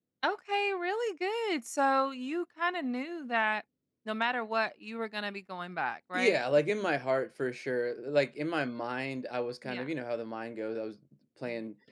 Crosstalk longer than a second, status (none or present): none